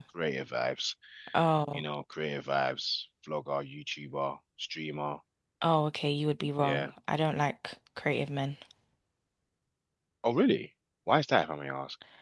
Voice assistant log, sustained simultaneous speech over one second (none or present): none